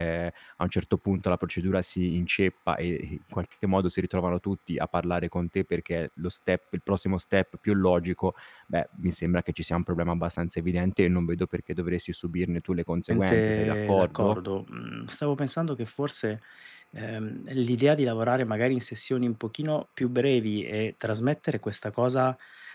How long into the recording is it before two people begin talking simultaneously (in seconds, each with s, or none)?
13.1 s